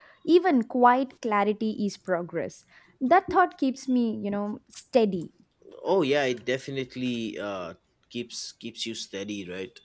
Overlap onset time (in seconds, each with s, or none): none